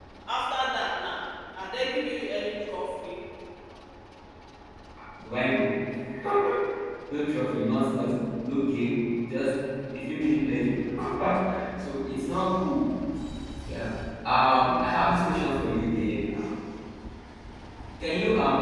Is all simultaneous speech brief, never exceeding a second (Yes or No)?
Yes